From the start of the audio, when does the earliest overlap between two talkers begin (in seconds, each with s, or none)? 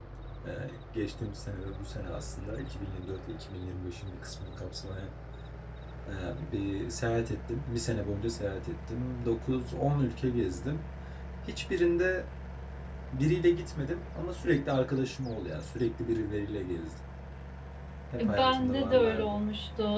18.2 s